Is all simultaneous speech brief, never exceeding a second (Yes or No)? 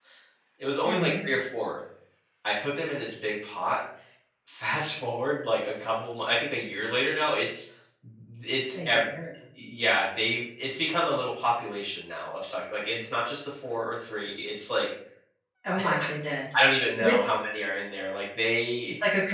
Yes